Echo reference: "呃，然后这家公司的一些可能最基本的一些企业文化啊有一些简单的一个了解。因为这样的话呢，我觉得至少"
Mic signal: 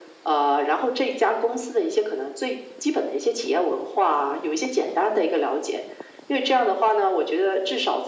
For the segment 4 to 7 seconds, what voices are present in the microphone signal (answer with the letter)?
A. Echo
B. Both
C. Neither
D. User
A